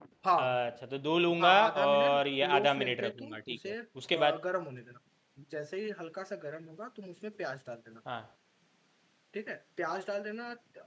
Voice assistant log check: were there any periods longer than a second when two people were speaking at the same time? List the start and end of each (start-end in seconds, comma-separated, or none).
1.4-3.7